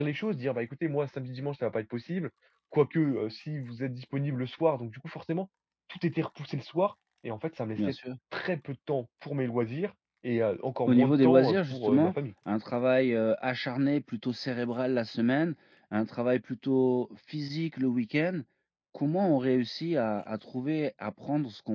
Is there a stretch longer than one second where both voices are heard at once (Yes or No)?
Yes